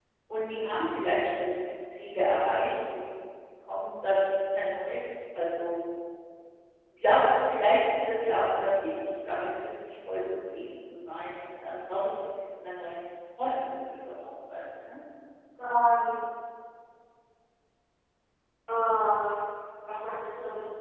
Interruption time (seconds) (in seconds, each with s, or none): none